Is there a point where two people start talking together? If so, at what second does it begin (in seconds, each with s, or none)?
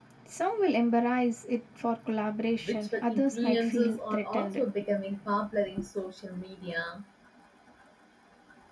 2.7 s